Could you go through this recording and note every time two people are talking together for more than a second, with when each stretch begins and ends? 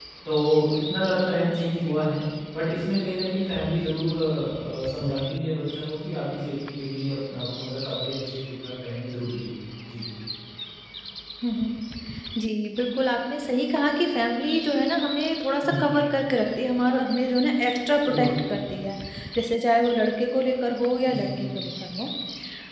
none

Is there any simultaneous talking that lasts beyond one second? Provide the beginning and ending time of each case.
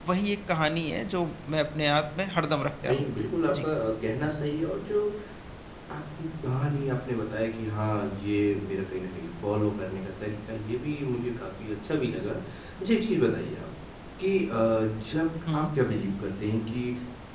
none

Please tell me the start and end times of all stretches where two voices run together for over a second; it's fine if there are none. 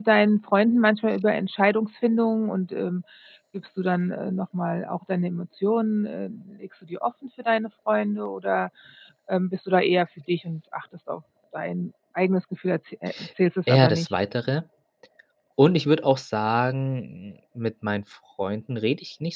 none

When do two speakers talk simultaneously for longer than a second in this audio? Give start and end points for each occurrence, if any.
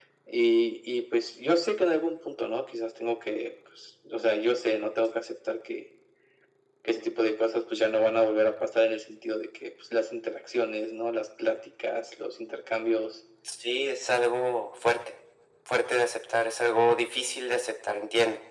none

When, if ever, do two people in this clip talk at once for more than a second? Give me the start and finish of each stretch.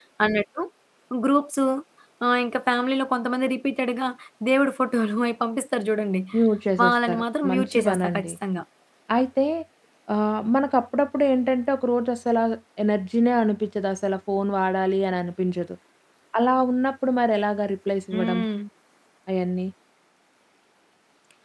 6.8-8.3

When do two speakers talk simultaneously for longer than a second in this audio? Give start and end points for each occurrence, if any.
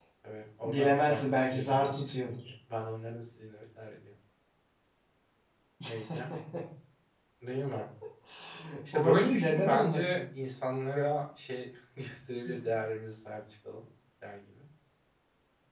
0.6-2.3, 8.9-10.2

